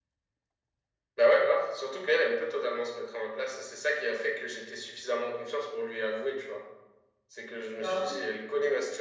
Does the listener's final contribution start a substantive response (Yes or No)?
No